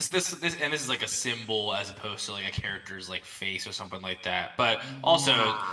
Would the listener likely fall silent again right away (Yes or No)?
Yes